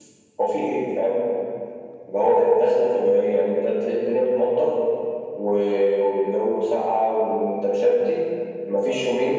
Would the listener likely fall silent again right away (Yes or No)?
Yes